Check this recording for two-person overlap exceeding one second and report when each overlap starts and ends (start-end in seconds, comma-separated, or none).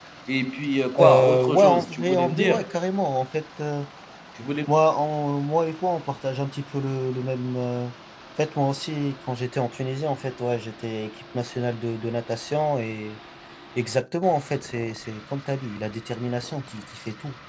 1.0-2.7